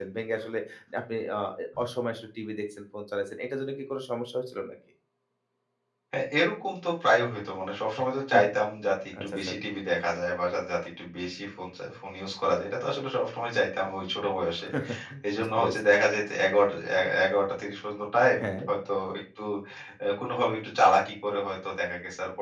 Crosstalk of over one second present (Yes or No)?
No